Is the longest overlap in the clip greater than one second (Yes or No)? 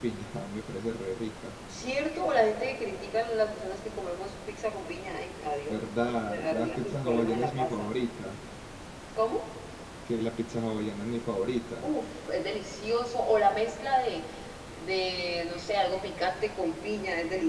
Yes